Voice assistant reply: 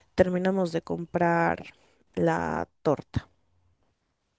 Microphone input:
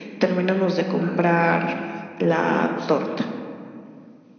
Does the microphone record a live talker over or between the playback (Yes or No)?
Yes